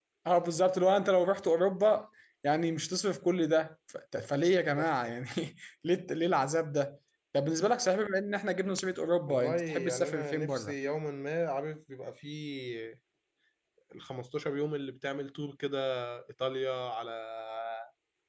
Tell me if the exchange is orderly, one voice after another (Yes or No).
No